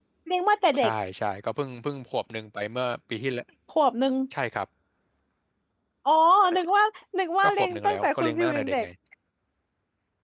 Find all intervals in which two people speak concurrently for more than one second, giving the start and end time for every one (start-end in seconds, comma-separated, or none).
7.4-8.9